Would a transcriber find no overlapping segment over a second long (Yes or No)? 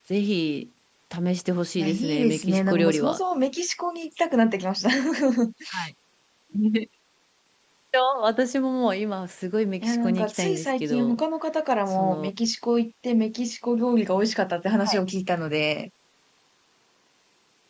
No